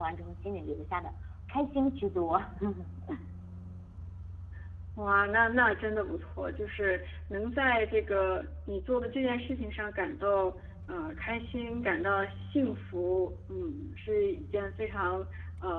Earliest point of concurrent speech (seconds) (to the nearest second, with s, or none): none